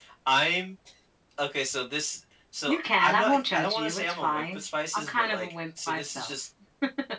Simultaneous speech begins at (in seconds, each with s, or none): 2.7 s